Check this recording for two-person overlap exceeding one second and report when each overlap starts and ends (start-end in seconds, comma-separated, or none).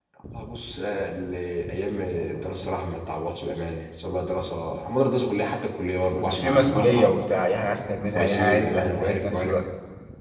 6.2-7.4, 8.1-9.5